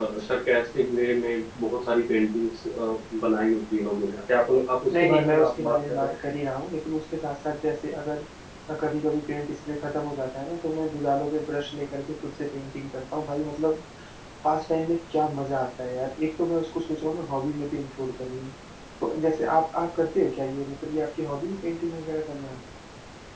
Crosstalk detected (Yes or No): Yes